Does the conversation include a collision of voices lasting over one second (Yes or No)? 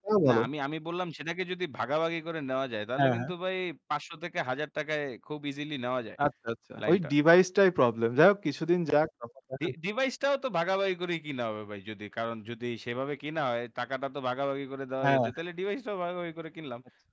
No